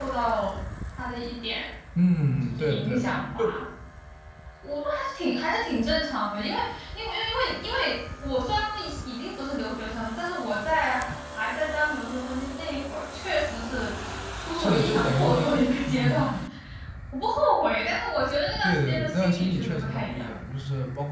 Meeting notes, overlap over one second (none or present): present